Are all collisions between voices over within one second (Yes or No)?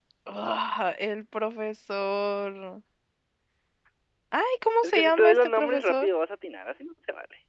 No